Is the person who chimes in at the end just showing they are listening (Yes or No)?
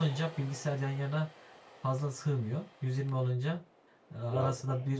Yes